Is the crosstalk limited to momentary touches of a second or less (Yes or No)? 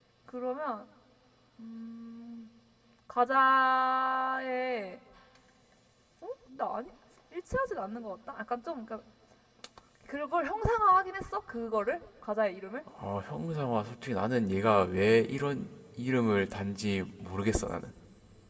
Yes